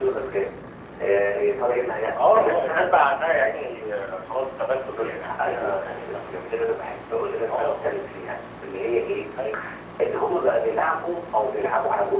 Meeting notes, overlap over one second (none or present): present